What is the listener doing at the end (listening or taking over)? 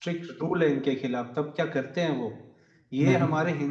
listening